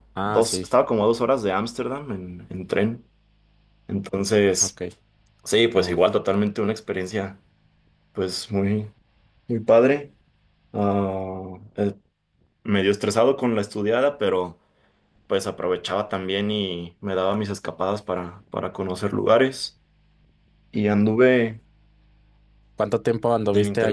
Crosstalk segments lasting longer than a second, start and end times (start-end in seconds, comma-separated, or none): none